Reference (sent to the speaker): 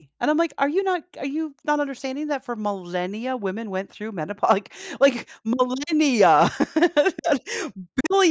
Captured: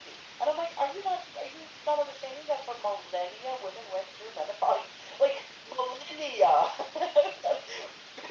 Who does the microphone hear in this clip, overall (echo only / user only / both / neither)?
echo only